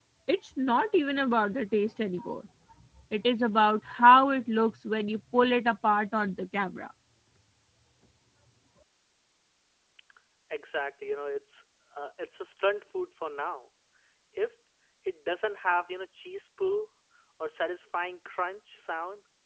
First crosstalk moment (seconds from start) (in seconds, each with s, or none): none